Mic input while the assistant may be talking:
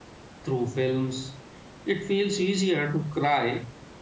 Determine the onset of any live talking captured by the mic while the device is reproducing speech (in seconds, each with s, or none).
0.4 s